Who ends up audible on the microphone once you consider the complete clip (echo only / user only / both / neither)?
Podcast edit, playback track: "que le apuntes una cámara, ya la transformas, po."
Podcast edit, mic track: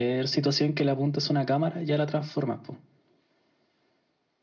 echo only